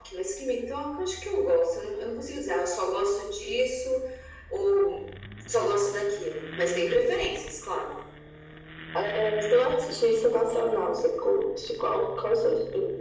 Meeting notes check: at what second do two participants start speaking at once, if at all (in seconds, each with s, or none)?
none